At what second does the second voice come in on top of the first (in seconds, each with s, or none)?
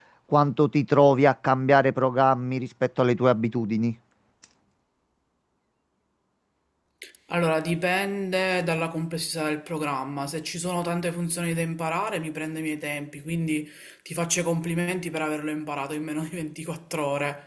none